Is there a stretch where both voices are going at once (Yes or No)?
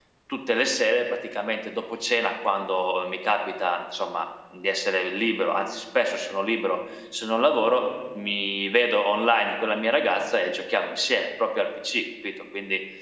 No